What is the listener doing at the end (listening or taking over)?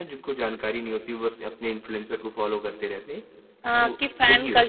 taking over